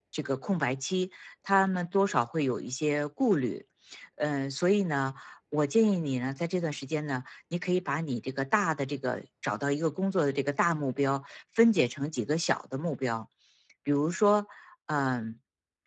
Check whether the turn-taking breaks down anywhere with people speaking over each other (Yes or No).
No